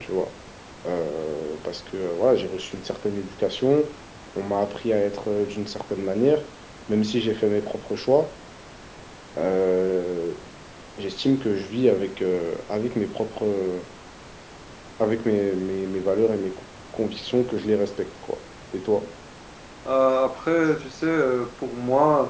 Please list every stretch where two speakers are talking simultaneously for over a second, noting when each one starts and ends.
none

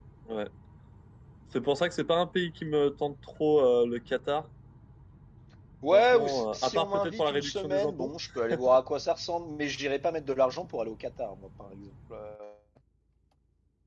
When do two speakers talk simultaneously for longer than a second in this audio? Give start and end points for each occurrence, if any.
5.9-8.1

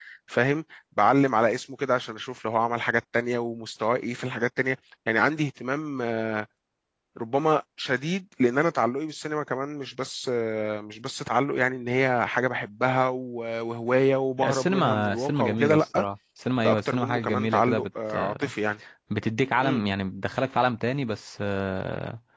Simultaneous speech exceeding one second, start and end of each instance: 14.4-16.0, 16.6-17.9

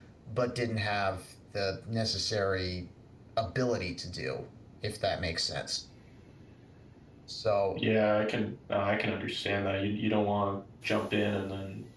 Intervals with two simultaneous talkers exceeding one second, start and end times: none

